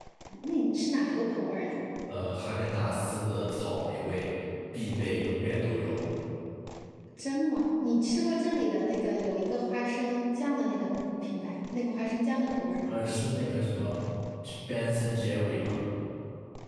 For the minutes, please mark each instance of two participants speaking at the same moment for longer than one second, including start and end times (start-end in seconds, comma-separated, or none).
none